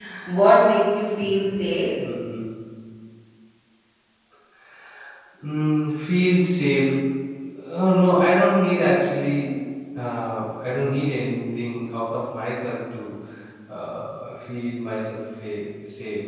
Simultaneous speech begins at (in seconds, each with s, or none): none